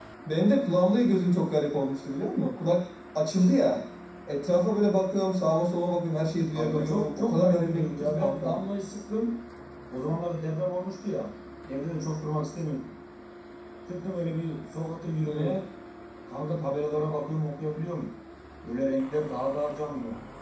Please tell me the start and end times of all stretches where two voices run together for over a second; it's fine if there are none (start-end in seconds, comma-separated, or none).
6.5-8.6